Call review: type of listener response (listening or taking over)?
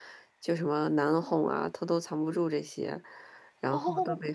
listening